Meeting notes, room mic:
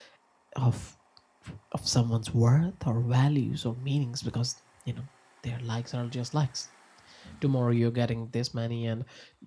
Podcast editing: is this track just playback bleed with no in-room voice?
No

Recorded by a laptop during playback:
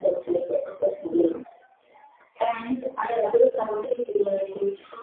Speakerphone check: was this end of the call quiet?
Yes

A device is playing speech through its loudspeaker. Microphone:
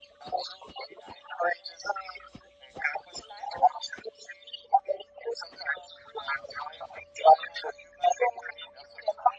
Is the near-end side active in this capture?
No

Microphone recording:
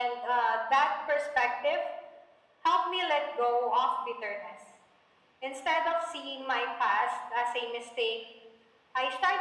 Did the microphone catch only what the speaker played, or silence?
Yes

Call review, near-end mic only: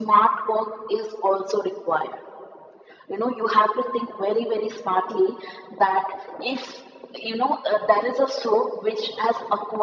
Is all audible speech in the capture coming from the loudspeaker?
Yes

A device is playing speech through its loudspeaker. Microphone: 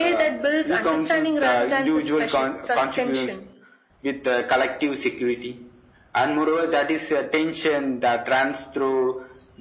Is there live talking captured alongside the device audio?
No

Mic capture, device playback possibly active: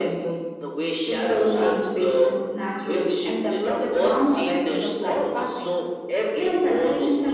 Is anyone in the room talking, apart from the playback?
No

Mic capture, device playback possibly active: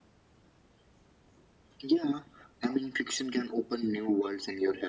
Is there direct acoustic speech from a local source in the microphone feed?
No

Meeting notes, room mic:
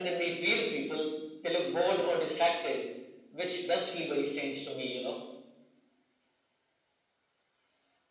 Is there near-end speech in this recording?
No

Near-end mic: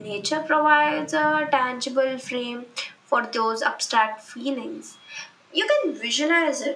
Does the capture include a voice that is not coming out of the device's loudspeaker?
No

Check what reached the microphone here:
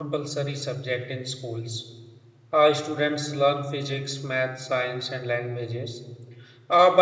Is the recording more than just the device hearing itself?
Yes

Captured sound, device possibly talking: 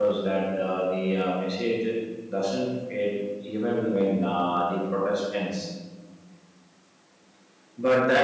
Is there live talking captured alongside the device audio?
Yes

